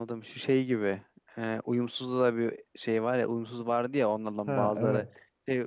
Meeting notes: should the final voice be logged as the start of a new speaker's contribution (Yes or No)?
No